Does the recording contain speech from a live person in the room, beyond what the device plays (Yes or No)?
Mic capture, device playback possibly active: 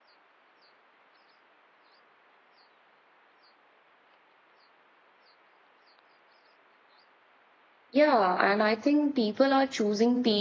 Yes